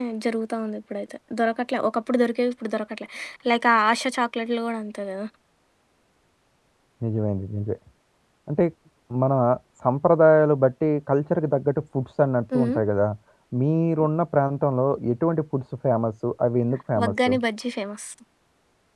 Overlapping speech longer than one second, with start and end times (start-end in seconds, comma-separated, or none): none